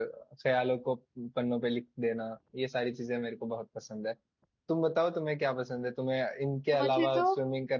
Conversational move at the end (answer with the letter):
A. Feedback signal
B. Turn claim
A